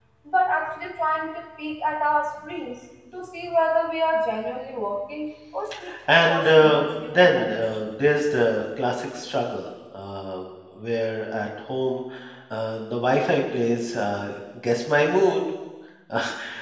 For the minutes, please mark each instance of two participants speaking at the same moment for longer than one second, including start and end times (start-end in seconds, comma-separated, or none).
6.1-7.5